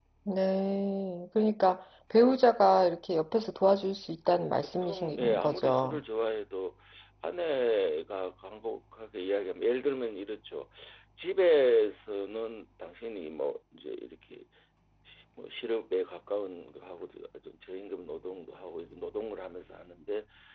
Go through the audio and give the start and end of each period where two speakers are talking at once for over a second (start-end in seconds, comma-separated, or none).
4.6-6.0